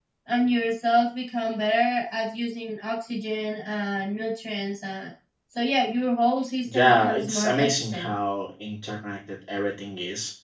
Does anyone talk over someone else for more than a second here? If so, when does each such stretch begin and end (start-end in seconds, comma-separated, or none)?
6.7-8.1